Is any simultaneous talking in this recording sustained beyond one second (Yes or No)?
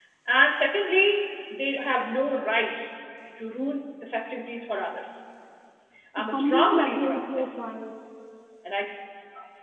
Yes